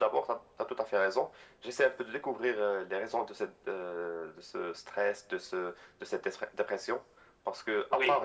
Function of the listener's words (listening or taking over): listening